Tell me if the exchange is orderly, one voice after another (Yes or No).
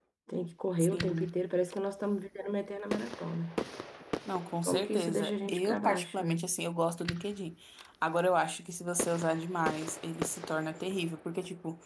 No